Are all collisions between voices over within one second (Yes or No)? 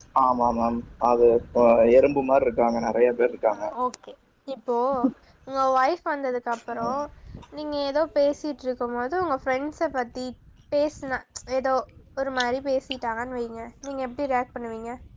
Yes